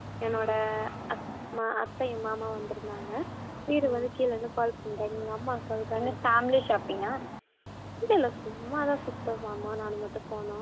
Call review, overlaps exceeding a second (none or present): none